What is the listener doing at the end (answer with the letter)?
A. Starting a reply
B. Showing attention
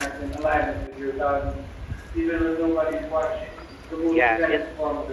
A